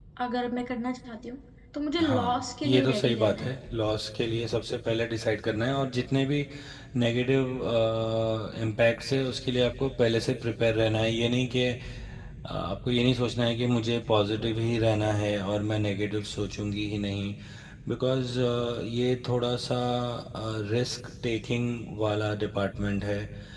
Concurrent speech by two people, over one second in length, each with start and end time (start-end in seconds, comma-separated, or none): 2.0-3.6